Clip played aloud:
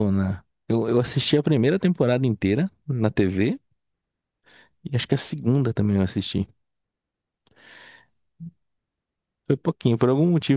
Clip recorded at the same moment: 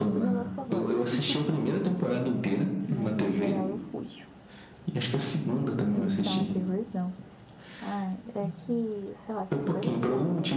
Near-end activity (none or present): present